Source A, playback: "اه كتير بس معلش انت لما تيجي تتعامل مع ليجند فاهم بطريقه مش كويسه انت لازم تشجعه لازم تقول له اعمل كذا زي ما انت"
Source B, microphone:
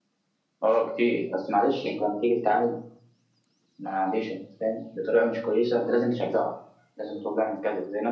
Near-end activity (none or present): none